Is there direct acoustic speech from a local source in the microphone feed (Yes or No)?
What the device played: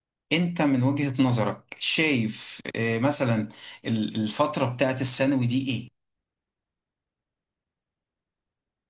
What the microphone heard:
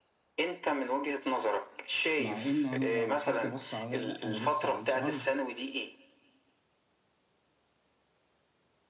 Yes